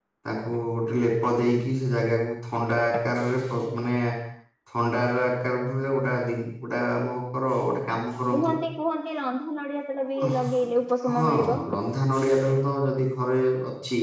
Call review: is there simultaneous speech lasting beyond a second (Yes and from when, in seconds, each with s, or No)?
No